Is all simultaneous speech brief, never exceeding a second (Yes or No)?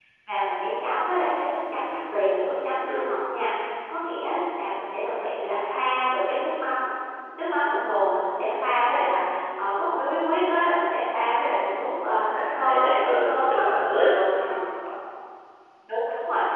No